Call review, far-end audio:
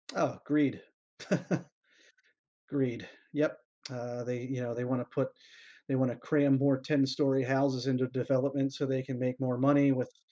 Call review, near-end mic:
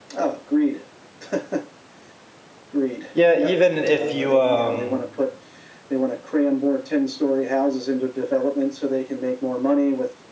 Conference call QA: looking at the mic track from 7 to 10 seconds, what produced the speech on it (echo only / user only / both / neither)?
echo only